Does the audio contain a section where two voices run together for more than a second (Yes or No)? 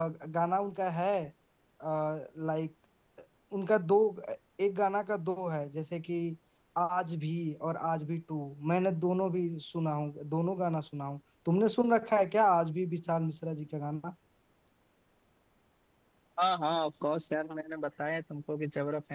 No